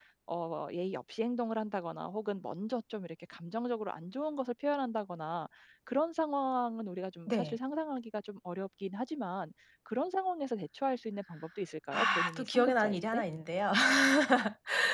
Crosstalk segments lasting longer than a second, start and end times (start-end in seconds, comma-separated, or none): 11.9-13.2